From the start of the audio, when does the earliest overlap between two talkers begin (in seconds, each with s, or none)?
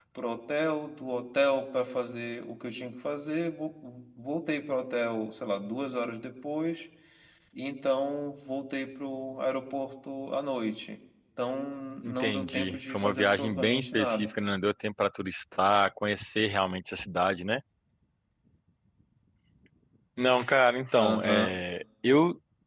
12.0 s